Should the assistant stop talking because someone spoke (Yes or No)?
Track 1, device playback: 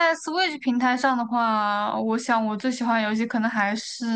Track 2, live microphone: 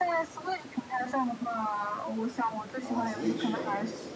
Yes